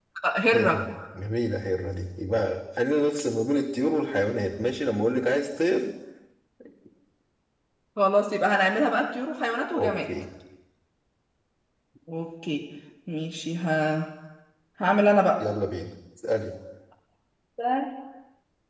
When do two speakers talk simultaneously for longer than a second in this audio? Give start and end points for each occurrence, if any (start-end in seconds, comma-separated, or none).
none